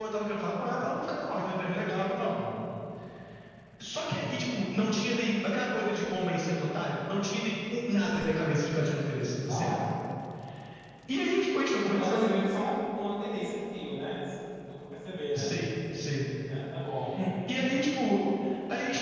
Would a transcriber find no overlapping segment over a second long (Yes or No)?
Yes